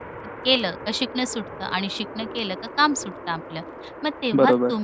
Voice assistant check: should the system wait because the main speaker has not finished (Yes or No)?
Yes